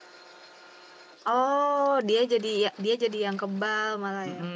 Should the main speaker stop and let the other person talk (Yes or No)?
Yes